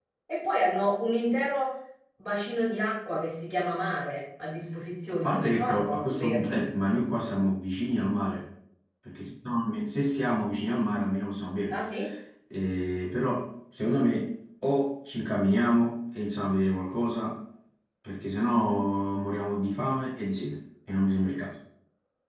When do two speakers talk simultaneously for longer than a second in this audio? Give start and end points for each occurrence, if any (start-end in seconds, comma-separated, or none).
5.1-6.6